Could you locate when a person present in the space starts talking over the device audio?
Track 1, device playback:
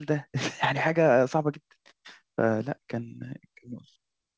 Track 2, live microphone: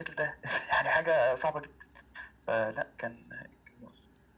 none

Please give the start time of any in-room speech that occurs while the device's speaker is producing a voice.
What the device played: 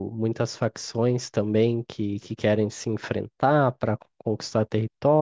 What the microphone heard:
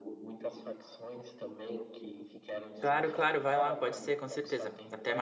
2.8 s

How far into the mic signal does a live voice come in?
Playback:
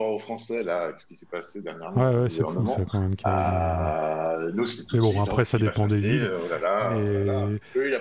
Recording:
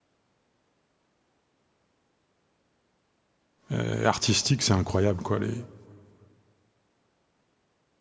3.7 s

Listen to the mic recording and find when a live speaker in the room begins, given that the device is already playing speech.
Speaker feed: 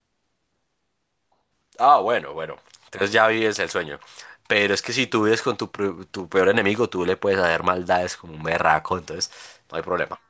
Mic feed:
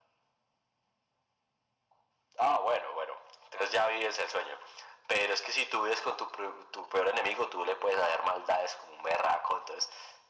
none

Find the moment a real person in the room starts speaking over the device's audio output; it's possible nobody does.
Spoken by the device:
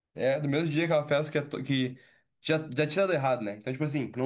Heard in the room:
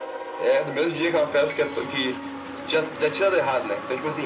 none

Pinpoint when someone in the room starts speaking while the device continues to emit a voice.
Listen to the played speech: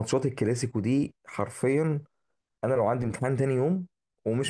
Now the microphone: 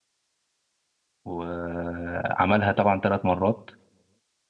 1.2 s

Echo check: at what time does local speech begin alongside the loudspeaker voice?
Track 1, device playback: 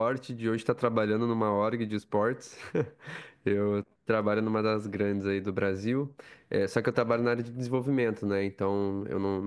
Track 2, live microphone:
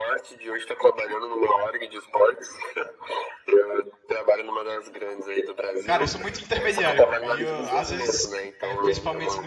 5.8 s

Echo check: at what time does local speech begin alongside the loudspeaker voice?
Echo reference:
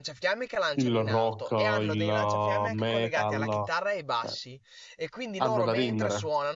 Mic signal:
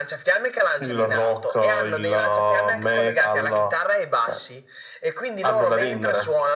none

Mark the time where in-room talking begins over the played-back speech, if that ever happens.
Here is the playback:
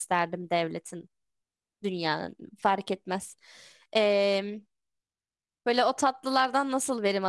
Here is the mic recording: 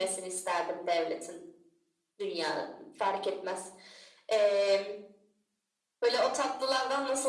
none

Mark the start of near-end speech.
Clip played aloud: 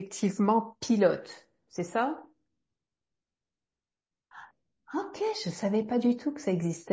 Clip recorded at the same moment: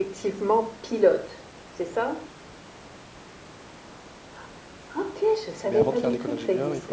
5.6 s

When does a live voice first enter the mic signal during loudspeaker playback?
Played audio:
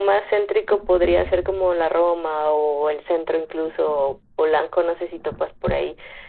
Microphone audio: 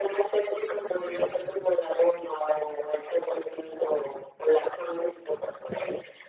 none

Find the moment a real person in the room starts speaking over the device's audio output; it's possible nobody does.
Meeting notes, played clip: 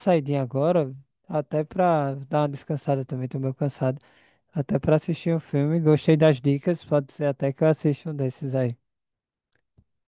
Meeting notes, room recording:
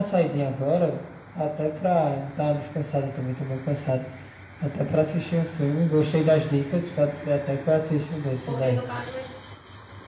8.4 s

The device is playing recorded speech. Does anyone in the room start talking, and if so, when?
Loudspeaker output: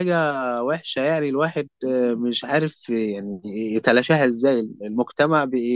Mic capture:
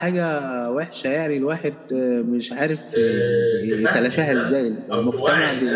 2.9 s

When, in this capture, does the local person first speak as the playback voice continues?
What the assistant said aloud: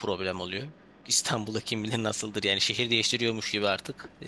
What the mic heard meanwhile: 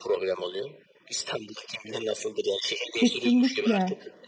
2.9 s

